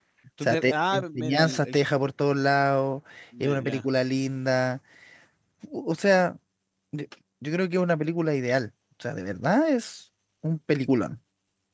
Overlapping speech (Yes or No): Yes